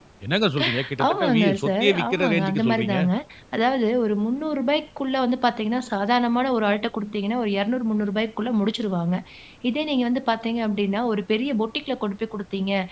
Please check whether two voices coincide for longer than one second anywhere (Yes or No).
Yes